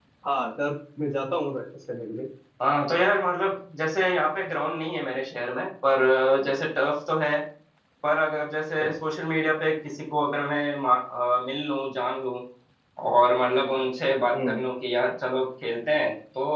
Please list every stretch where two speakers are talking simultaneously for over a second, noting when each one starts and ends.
none

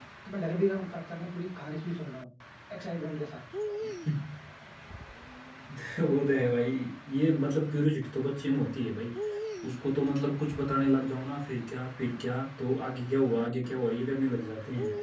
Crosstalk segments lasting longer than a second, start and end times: none

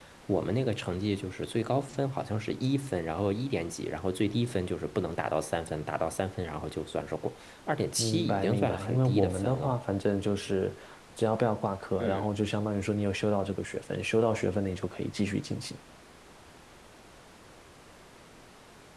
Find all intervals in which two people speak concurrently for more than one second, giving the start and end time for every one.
8.0-9.8

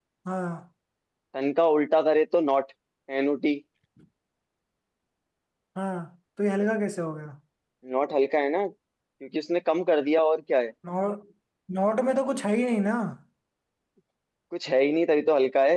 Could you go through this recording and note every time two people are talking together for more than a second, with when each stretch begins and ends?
none

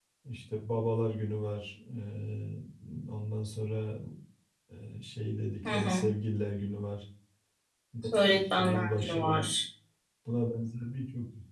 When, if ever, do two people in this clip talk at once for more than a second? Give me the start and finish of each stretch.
8.1-9.5

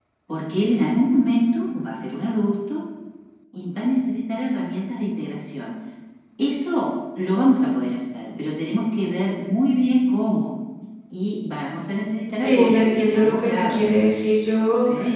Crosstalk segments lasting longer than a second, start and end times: 12.4-13.9

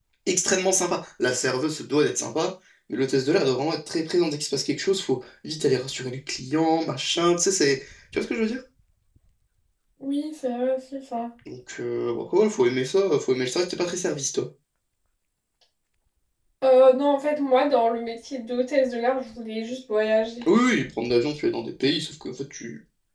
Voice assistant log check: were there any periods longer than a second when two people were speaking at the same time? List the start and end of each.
none

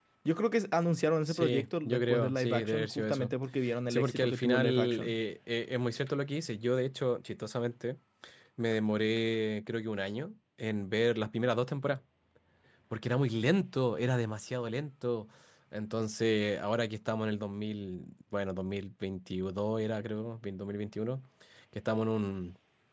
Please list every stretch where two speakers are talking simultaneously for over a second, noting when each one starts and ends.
1.3-3.3, 3.9-5.2

